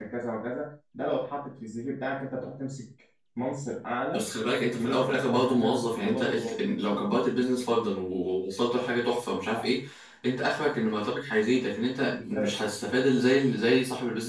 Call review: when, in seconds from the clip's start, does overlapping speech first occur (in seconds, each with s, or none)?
4.8 s